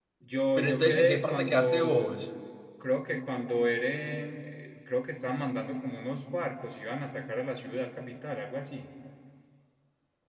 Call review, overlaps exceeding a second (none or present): present